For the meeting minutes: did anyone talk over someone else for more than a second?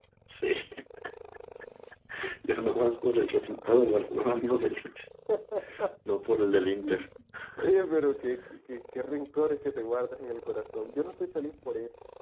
No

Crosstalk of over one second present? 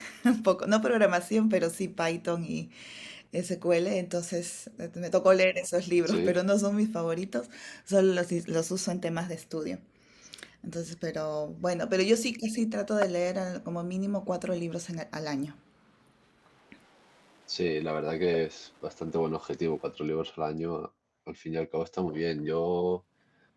No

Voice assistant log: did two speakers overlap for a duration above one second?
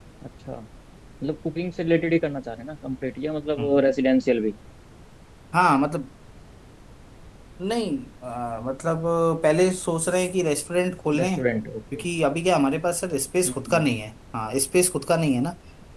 No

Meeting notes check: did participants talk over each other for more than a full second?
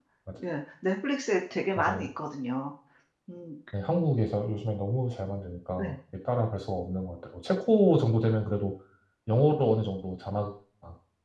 No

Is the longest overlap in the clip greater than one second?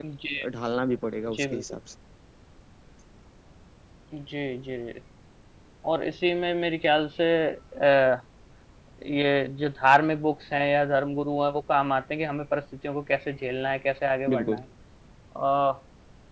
No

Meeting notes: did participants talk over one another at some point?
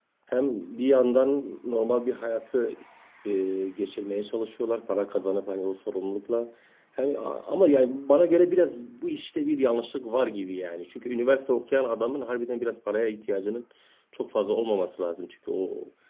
No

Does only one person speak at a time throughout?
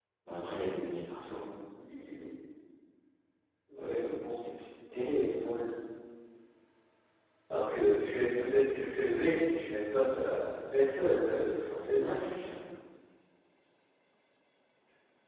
Yes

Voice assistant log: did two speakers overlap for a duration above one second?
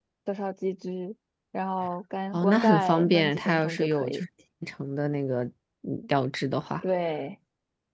Yes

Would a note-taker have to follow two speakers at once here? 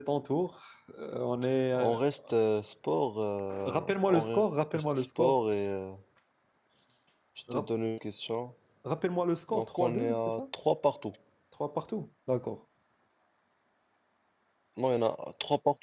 Yes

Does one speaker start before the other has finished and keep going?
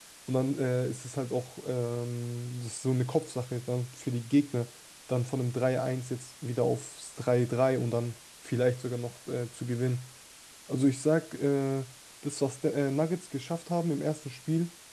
No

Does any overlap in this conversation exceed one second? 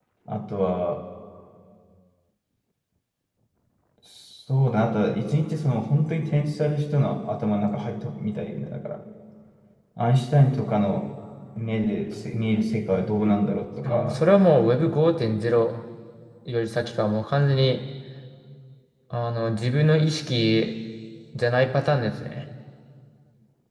No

